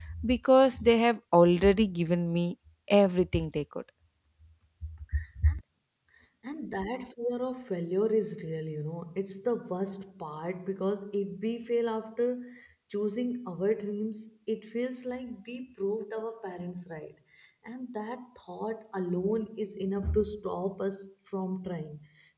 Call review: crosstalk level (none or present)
none